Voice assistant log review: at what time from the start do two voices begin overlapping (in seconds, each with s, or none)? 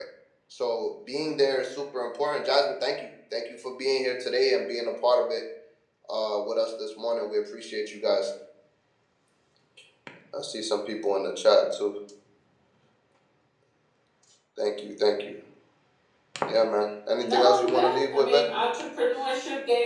17.2 s